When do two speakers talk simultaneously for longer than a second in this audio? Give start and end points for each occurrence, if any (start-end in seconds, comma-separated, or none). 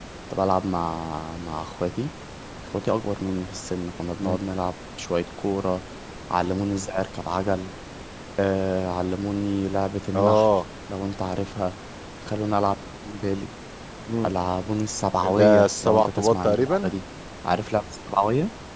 15.4-16.9